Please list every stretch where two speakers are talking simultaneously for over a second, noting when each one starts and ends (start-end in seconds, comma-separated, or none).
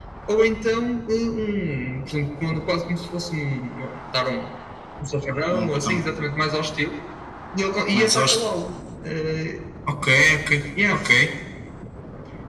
none